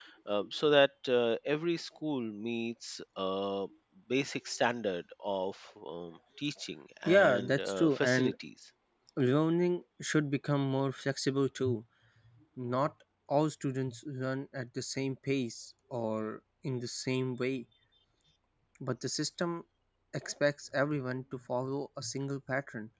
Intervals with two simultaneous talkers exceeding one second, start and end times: 7.0-8.3

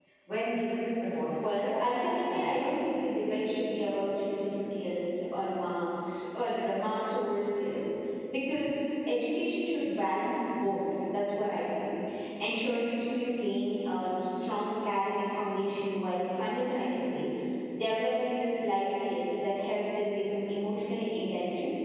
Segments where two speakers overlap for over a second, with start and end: 1.4-2.7

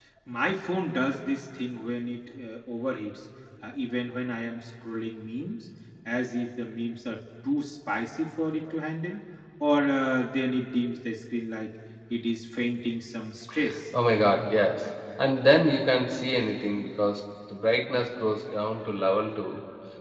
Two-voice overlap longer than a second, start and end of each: none

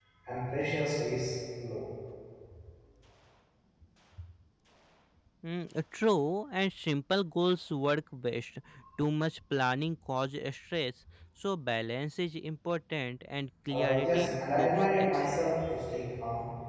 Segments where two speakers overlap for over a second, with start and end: 13.7-15.4

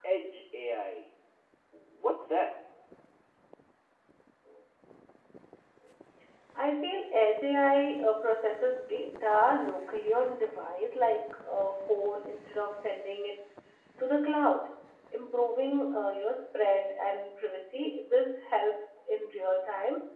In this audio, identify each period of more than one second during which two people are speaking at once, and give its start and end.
none

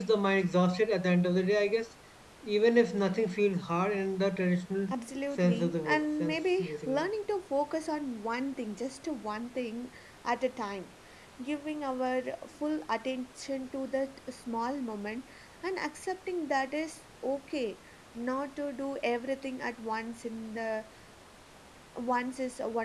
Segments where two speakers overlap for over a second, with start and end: 5.4-7.0

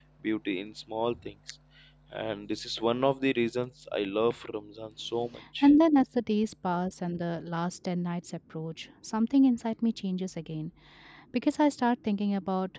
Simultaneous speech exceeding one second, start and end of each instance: none

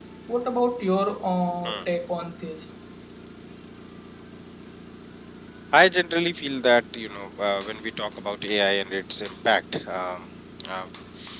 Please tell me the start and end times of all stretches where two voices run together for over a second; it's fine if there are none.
none

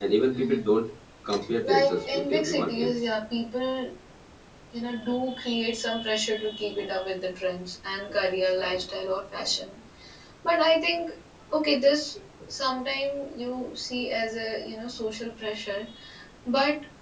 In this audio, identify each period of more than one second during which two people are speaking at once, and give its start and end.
1.6-3.0

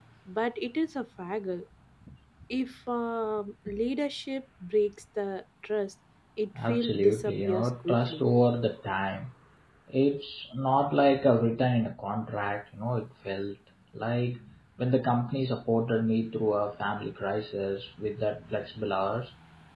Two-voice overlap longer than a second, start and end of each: 6.7-8.2

